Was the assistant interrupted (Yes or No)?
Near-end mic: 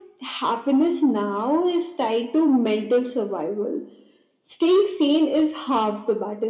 No